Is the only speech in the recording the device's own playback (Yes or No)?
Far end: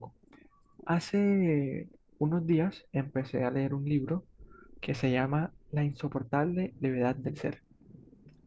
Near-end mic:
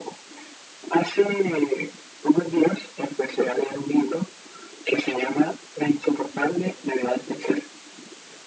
Yes